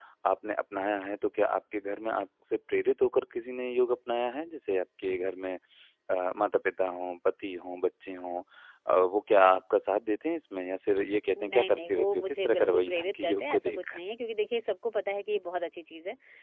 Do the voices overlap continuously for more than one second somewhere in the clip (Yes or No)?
Yes